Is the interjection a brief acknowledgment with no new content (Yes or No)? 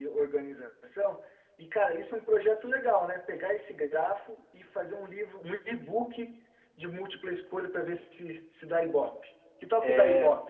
No